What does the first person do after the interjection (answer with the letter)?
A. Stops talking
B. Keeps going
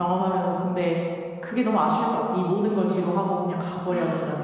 A